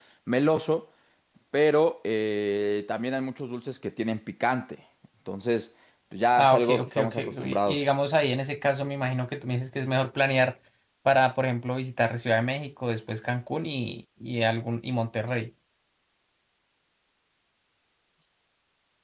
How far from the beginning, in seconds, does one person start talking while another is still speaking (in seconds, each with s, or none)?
6.3 s